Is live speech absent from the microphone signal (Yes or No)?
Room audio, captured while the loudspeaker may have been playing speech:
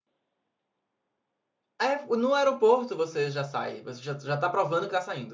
No